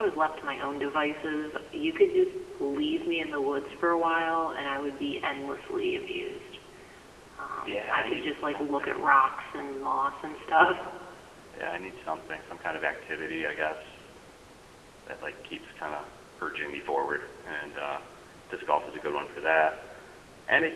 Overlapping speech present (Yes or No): Yes